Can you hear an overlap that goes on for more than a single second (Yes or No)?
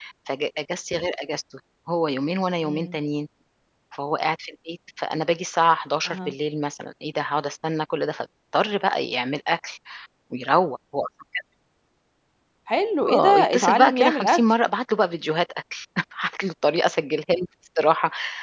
Yes